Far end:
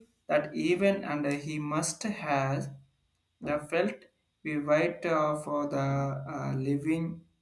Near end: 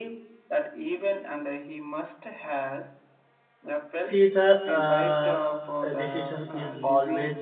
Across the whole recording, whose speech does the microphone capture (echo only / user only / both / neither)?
both